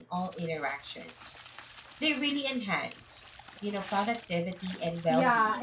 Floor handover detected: Yes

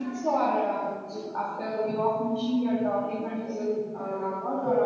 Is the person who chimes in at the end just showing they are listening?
No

